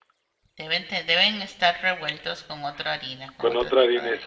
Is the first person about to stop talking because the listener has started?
Yes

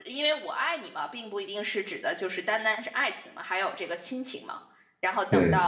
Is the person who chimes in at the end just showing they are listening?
Yes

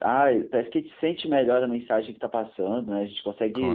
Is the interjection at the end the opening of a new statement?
No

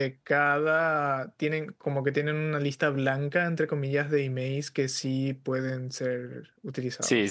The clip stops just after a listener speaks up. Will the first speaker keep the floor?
No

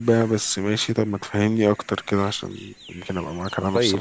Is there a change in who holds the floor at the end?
Yes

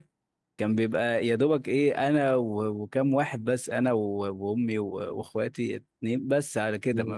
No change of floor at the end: Yes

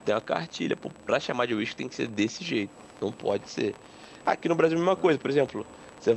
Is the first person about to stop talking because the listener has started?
No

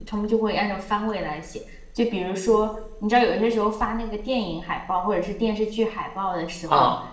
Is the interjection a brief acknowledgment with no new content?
Yes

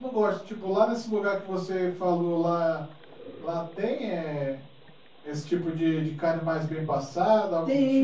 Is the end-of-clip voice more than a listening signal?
Yes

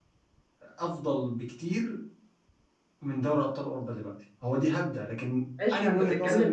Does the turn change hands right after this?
Yes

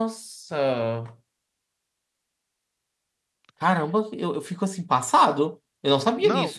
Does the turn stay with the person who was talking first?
No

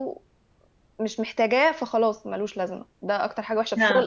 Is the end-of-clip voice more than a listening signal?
No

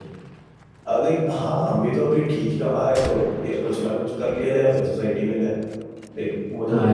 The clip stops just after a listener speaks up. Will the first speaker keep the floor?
No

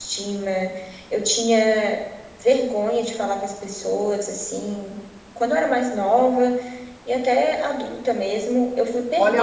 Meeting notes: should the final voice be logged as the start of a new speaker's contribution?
Yes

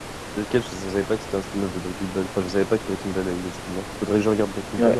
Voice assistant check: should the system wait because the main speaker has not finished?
No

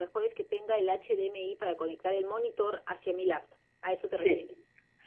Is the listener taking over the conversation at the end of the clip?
Yes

